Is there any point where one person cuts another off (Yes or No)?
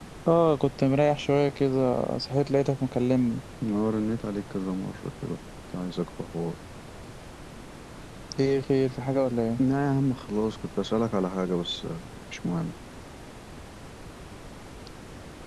No